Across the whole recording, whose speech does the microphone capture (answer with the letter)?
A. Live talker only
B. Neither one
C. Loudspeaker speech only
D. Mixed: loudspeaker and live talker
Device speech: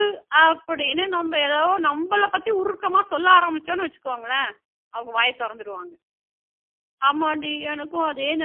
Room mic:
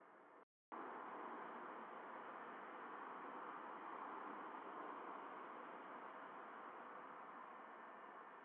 B